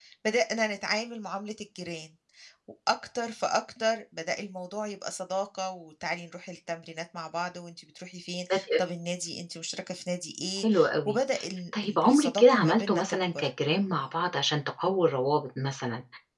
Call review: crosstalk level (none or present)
present